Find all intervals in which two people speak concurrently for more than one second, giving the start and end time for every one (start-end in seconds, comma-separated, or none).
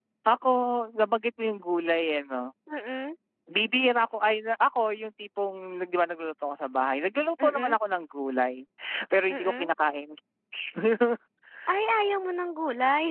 none